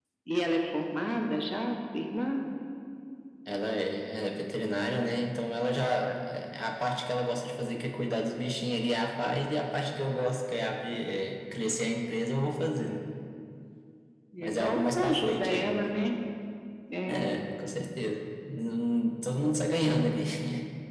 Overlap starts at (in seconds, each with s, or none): 14.4 s